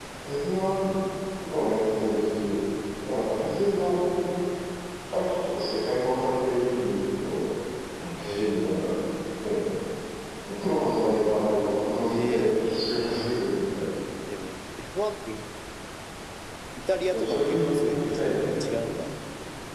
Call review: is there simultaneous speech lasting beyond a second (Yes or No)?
Yes